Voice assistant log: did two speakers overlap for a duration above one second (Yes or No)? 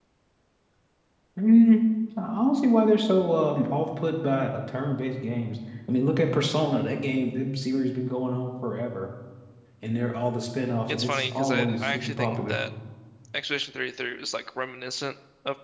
Yes